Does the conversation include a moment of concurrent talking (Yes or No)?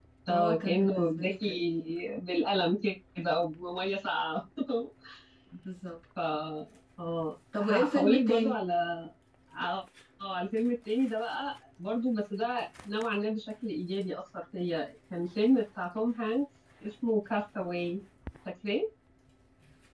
Yes